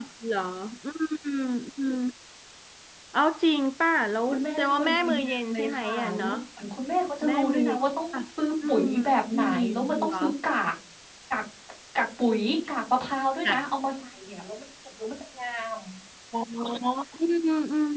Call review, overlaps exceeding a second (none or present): present